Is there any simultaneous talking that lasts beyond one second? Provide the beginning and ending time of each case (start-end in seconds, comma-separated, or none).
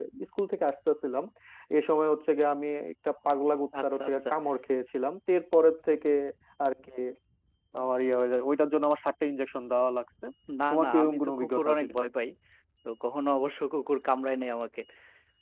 10.7-12.0